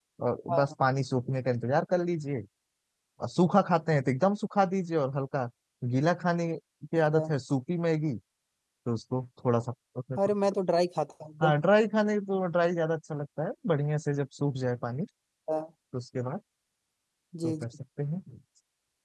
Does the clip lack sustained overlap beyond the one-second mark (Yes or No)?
Yes